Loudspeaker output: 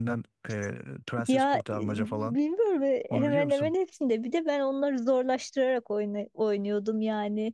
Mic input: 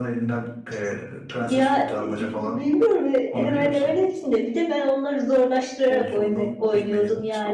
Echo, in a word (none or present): present